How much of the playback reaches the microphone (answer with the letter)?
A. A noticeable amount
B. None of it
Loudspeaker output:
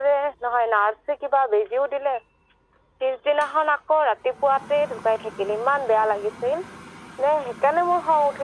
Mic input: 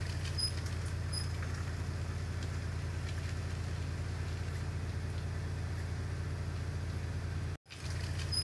B